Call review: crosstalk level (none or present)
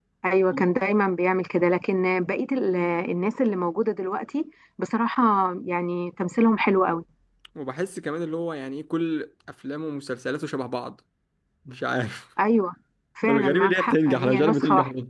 present